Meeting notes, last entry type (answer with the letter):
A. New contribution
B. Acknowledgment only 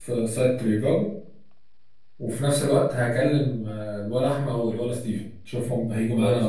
A